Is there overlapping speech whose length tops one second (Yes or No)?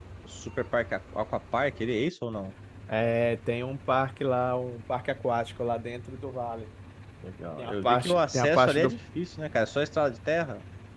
Yes